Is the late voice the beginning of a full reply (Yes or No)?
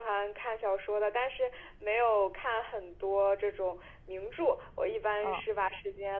No